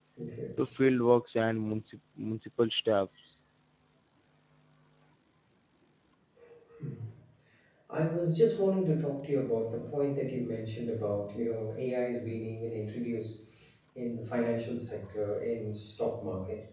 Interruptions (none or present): none